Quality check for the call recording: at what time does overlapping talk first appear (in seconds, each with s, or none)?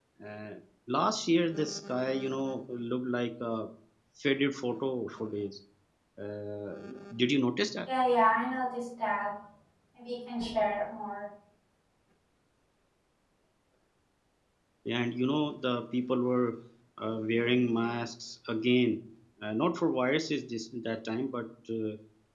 none